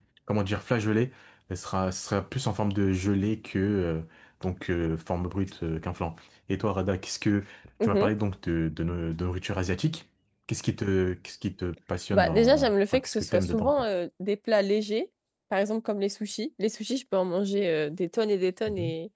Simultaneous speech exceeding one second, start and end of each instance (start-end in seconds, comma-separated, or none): 12.1-13.8